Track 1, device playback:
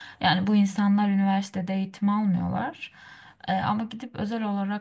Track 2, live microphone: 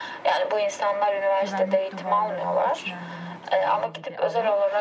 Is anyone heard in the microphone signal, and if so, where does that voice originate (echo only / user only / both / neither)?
both